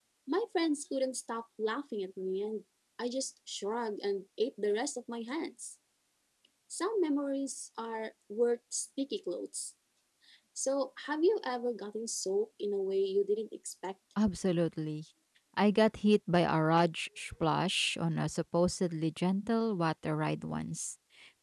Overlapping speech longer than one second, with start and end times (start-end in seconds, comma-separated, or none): none